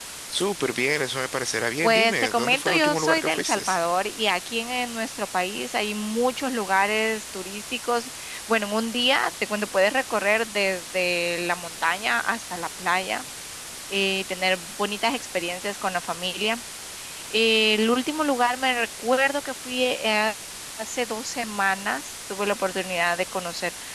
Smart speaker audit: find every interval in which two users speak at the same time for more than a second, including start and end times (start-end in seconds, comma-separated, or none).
1.8-3.6